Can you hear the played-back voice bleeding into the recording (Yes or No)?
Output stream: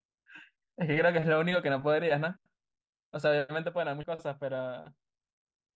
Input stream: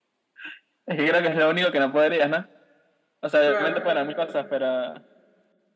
Yes